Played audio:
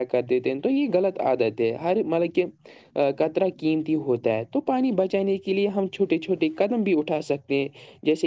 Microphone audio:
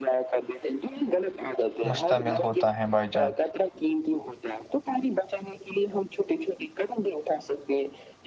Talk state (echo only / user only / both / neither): both